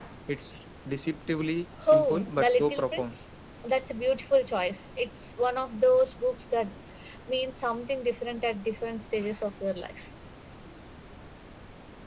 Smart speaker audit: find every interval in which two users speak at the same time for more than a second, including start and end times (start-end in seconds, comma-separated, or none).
1.9-3.2